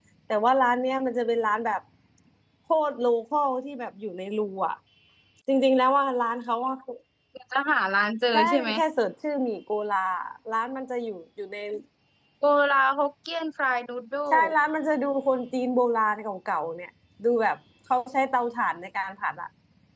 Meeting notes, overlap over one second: none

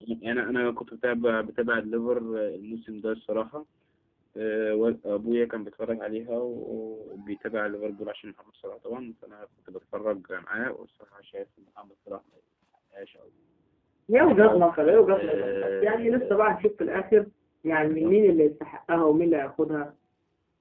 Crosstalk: present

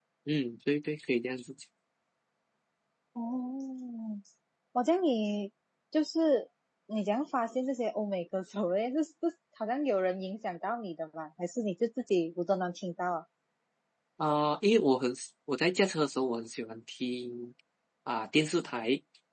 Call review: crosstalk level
none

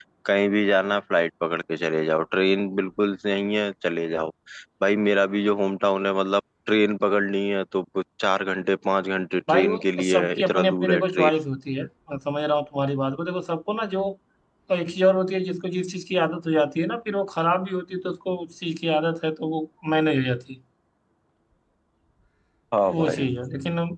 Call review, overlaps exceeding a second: present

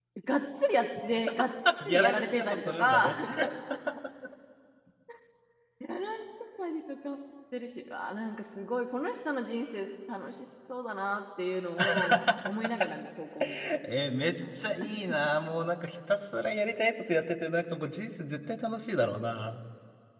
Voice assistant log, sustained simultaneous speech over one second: present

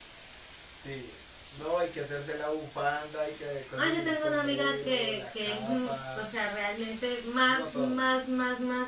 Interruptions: present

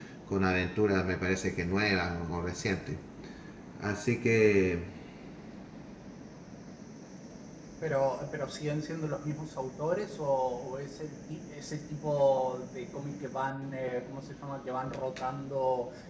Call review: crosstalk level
none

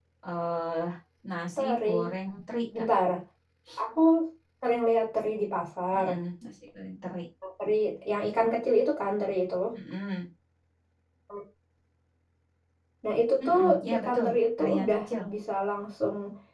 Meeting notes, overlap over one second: present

